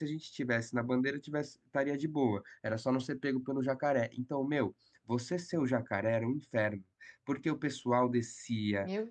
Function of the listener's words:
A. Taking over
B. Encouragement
B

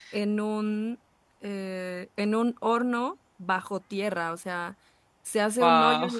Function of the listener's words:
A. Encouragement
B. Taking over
A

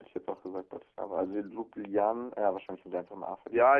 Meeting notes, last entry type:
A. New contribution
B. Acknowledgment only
A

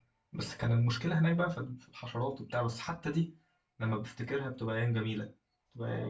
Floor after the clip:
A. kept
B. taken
B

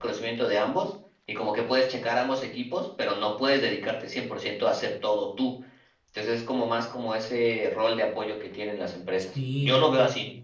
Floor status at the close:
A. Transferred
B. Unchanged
A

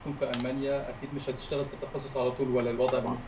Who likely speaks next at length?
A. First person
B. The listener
B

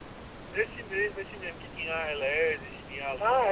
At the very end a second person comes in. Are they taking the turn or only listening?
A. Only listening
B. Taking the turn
B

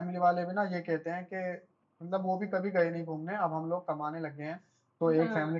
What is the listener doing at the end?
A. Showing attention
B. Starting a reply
B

